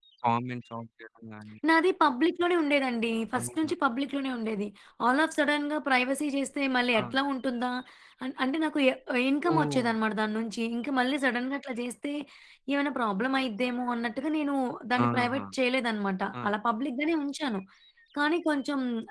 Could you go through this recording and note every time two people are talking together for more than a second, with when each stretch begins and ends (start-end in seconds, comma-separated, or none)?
none